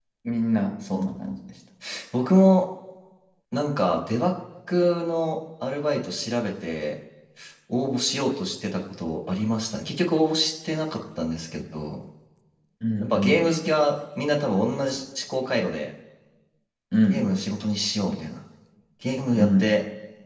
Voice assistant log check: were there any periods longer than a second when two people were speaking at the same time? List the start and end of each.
none

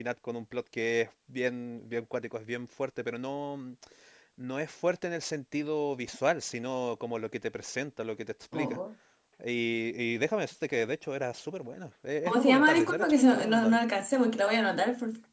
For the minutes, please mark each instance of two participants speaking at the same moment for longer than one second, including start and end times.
12.3-13.8

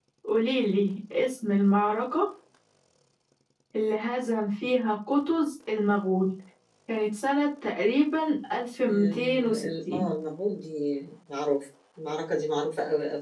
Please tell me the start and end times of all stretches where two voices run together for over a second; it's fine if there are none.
8.9-10.1

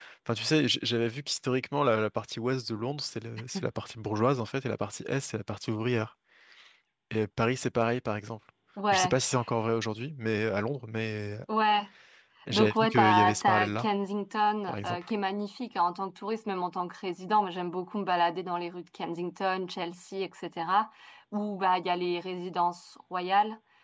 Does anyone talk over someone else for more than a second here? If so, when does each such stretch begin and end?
12.5-13.9

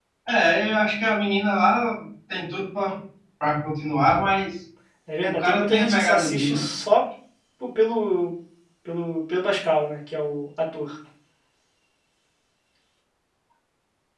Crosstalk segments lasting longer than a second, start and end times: 5.3-6.6

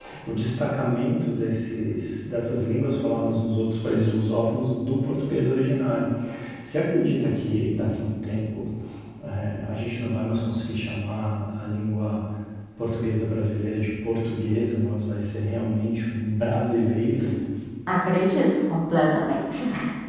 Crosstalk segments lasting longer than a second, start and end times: none

